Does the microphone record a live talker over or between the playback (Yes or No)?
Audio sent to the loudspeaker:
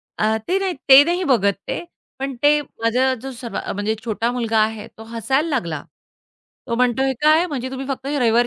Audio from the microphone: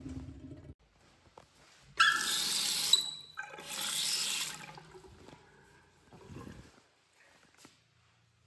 No